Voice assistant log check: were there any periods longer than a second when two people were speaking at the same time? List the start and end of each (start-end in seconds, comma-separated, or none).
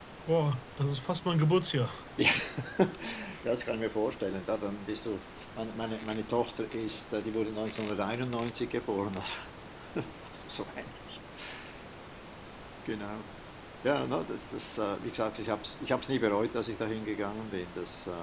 none